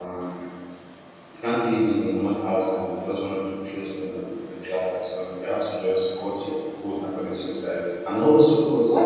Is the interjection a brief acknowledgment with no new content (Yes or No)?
No